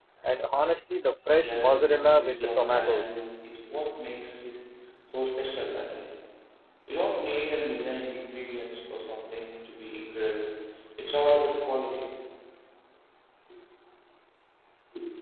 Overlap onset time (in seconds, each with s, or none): 1.4 s